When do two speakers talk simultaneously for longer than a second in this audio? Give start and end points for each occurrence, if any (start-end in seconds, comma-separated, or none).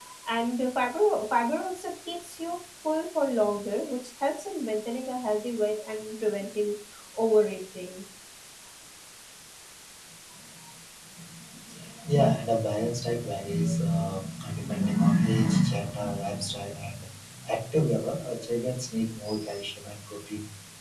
none